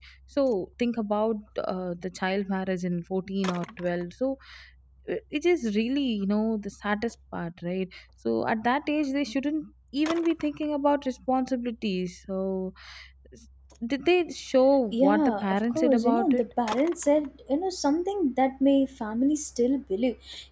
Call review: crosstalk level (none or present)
present